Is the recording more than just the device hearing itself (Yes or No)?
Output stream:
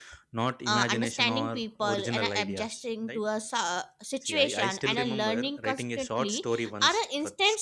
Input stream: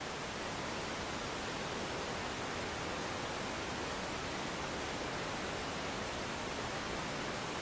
No